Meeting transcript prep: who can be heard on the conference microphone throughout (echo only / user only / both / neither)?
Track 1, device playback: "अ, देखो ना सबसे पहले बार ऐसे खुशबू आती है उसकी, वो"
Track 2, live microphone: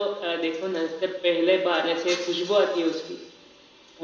echo only